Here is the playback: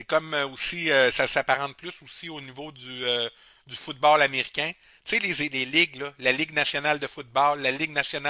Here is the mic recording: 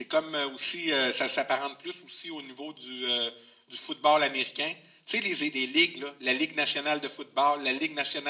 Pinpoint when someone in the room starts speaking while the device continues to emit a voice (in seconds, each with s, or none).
none